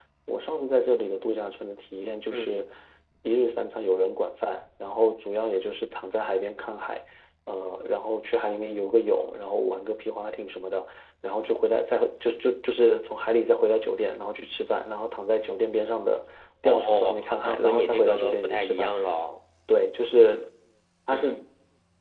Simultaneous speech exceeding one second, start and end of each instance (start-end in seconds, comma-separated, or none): 16.6-18.9